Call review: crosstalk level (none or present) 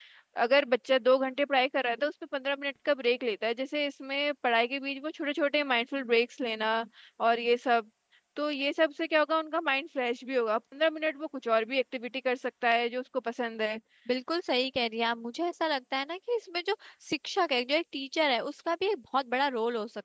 none